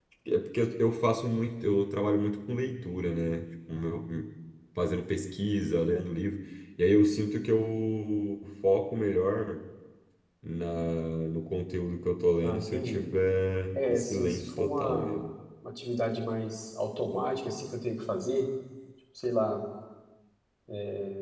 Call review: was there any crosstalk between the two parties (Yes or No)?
Yes